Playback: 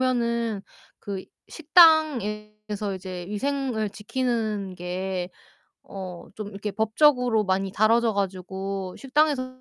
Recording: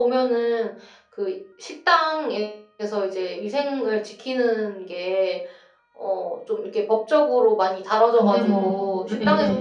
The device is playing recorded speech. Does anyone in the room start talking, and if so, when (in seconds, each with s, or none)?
8.1 s